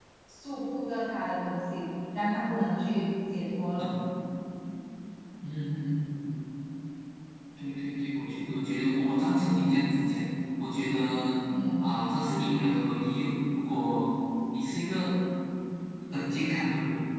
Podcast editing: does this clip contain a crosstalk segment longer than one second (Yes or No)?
No